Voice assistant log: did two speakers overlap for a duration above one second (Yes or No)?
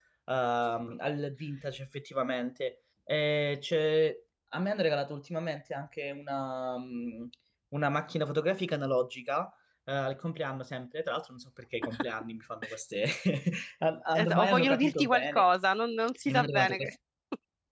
Yes